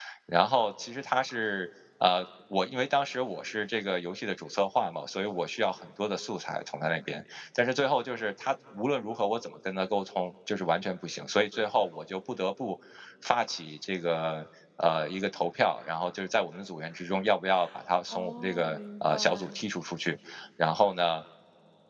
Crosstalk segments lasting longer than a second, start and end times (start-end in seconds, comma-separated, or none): 18.1-19.6